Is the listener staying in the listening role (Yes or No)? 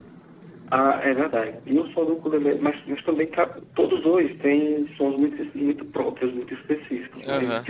Yes